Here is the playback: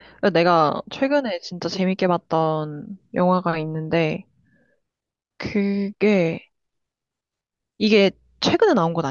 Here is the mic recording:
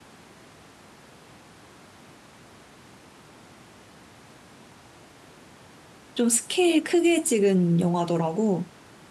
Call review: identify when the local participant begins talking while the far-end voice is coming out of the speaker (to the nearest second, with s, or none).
6 s